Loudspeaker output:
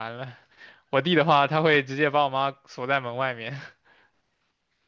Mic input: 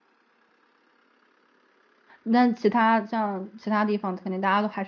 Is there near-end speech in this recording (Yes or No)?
Yes